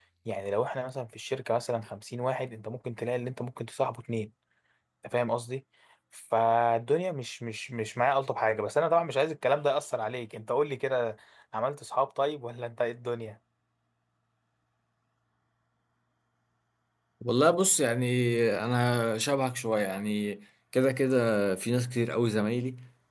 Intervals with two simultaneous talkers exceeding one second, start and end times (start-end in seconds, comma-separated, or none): none